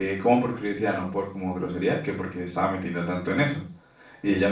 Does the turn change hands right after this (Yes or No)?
No